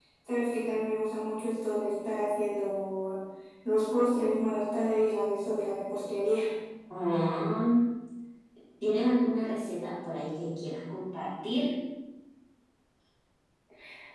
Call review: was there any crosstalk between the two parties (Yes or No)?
No